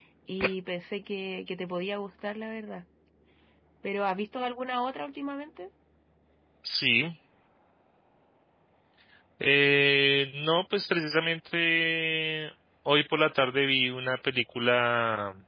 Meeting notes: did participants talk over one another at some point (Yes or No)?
No